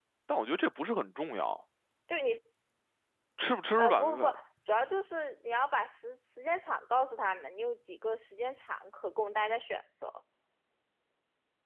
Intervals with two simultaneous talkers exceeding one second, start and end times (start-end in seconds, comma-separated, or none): none